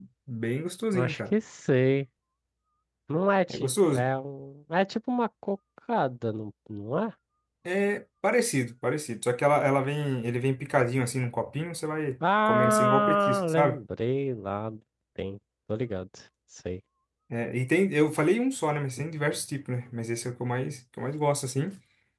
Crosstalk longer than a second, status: present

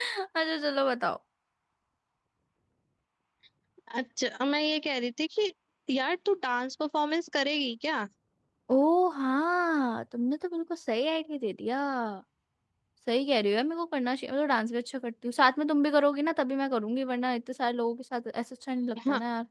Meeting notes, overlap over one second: none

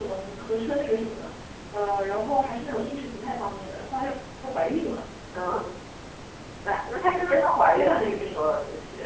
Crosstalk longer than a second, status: present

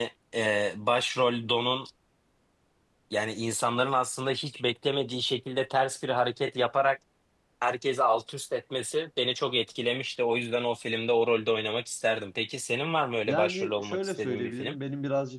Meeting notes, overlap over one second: present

